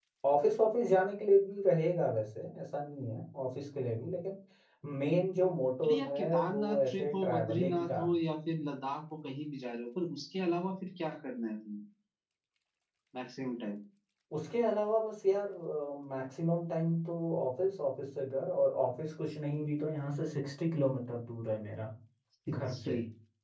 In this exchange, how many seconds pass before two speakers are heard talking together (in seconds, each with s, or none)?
5.8 s